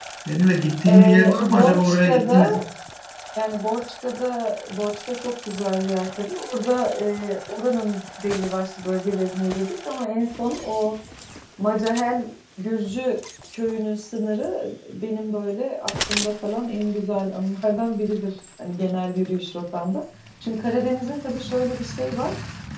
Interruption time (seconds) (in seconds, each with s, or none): 0.8 s